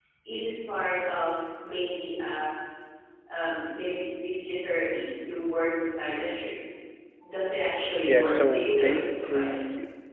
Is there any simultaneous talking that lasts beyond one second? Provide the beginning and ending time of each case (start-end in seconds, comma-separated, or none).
8.1-9.5